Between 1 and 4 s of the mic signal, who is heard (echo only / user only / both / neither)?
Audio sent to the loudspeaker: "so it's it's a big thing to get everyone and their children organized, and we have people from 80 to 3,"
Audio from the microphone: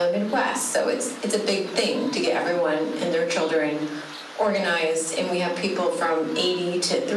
echo only